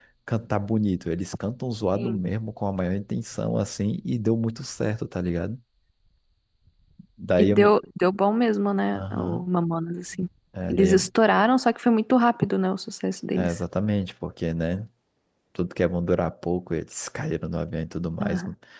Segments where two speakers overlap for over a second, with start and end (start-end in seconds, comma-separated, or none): none